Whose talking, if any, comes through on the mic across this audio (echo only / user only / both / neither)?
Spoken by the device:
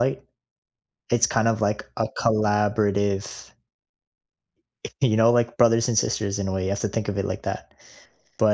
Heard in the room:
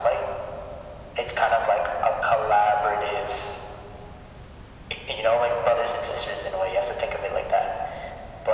echo only